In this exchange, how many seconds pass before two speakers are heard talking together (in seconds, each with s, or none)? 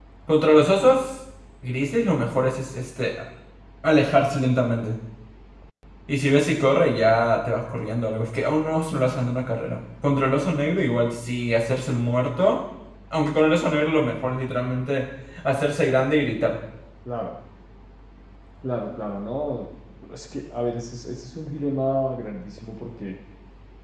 none